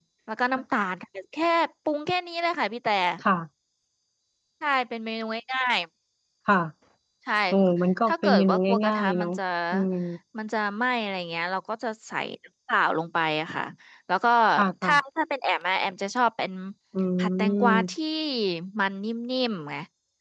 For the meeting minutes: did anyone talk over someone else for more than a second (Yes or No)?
Yes